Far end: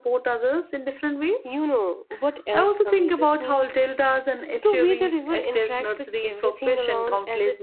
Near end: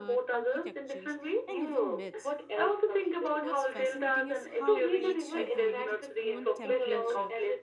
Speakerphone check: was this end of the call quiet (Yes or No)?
No